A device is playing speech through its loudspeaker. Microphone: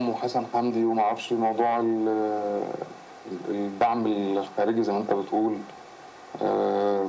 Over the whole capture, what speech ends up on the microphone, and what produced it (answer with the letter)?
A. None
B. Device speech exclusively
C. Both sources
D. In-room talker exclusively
B